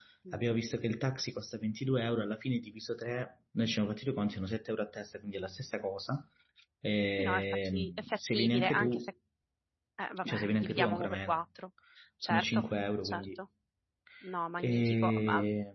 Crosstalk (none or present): present